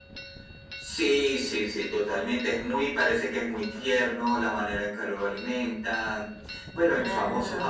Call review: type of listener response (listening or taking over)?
listening